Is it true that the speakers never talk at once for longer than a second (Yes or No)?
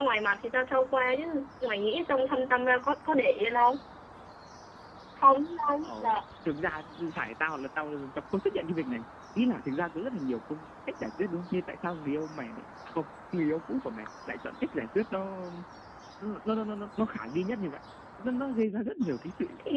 Yes